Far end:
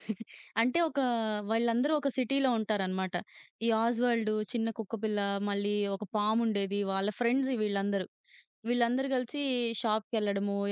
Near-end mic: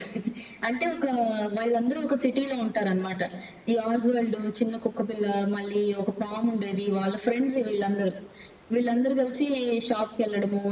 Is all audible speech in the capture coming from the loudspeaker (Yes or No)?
Yes